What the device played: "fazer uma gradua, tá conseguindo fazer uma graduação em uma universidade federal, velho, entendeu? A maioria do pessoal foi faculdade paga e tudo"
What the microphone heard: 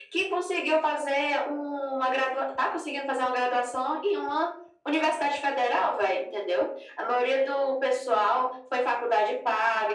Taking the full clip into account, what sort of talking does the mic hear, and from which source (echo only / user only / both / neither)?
echo only